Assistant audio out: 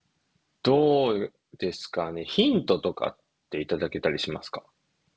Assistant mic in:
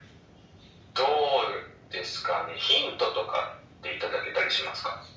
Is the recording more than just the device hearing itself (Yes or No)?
No